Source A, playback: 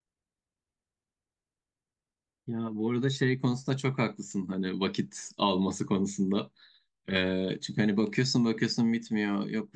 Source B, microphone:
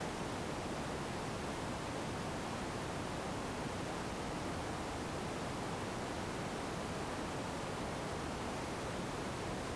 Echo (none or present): none